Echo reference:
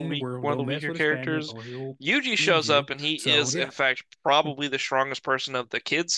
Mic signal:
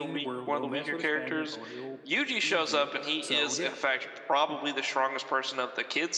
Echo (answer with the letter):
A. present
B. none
A